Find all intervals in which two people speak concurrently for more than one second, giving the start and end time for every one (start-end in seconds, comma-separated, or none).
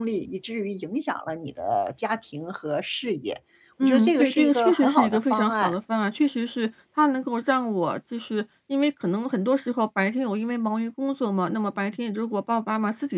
3.8-5.7